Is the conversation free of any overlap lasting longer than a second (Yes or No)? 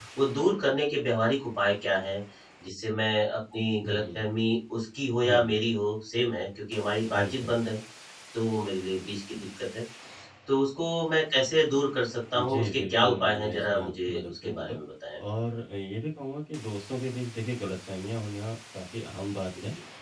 No